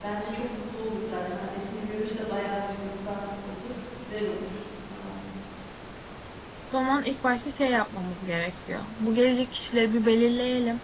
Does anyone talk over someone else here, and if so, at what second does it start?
none

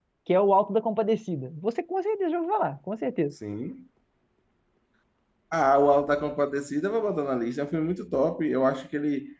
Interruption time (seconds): none

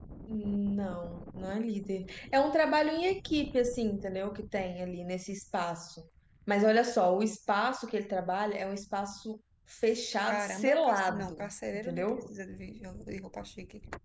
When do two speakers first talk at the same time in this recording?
10.3 s

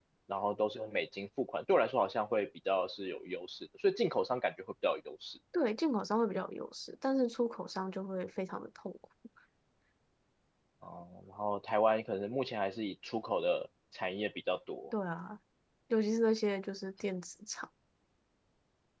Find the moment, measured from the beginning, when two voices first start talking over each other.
none

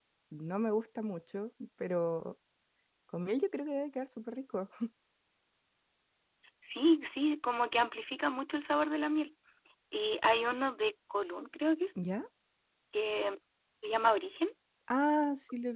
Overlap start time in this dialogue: none

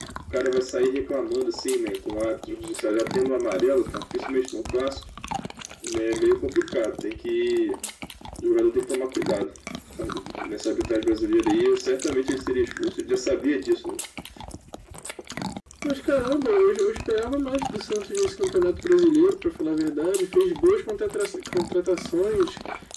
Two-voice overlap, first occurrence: none

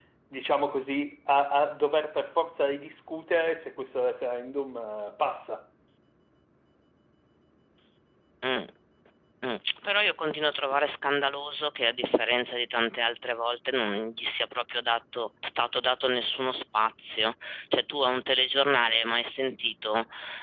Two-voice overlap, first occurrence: none

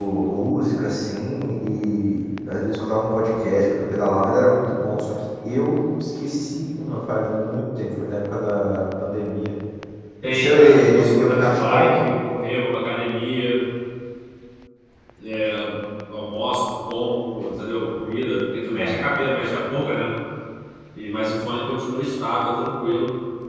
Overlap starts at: 10.3 s

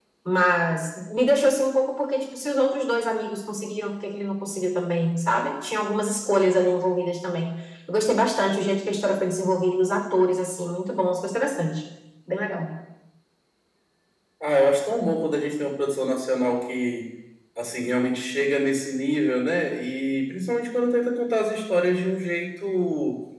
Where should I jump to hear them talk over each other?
none

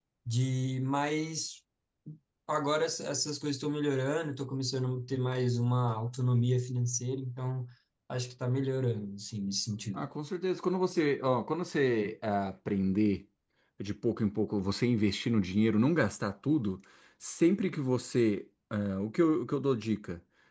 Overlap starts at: none

